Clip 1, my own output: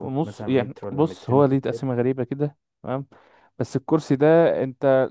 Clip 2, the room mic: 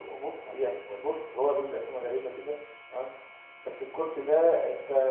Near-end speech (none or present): none